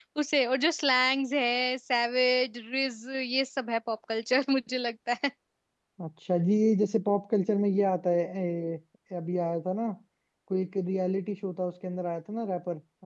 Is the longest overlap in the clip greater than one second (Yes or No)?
No